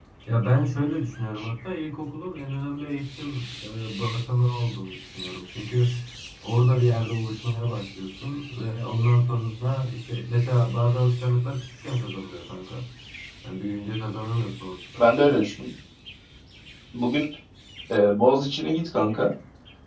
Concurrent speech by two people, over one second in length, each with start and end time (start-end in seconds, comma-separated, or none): none